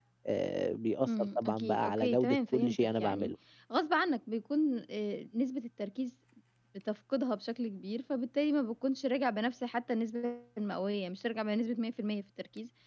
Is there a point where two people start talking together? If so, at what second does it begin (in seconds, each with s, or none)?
1.1 s